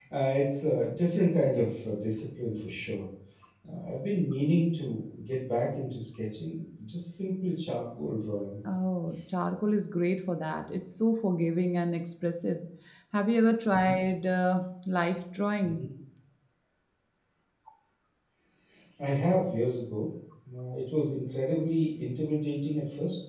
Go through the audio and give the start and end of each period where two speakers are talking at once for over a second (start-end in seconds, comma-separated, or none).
none